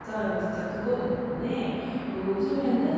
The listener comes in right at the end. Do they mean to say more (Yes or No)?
No